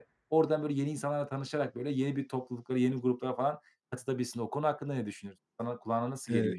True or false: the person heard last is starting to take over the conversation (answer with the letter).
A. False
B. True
B